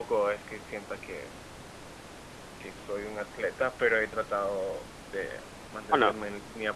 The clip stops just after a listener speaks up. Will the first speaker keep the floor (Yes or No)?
Yes